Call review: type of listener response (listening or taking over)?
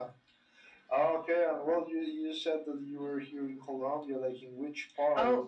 taking over